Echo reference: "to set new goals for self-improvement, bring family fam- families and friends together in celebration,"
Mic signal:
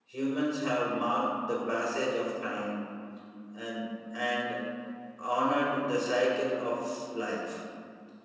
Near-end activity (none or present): present